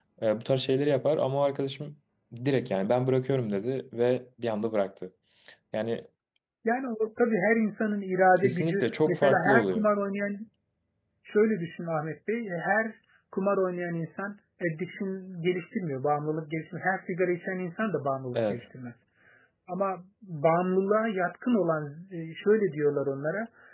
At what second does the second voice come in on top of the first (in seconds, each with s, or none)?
8.4 s